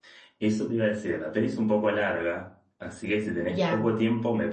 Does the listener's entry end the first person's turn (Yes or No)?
No